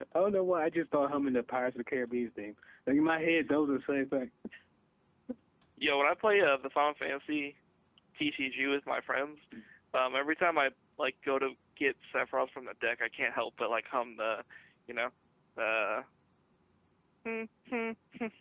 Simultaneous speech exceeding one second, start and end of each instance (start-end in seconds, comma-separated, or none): none